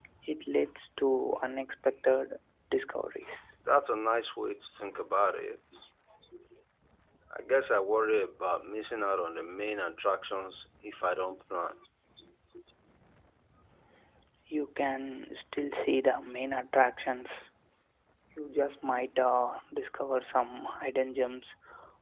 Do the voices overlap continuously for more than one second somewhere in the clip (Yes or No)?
No